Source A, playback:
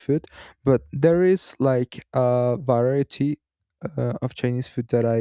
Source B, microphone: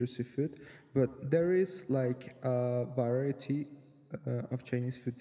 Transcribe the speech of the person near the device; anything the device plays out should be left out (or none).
none